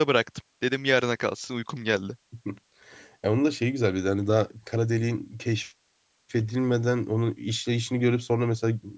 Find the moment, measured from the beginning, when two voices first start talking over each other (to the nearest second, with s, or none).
none